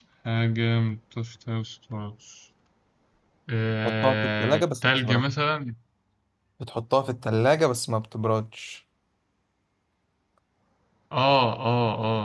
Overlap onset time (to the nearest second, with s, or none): 4 s